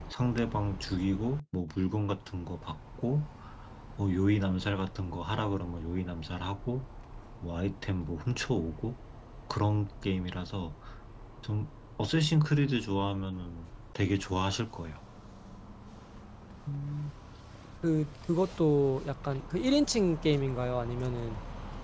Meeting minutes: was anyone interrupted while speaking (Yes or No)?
No